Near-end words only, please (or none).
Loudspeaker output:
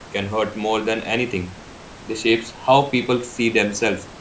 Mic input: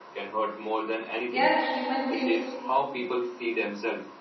They are human things.